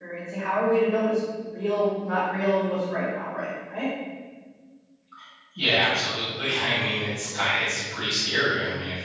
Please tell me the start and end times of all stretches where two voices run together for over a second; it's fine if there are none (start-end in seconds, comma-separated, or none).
none